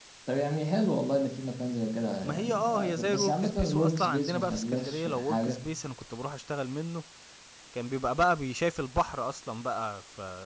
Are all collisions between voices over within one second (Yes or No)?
No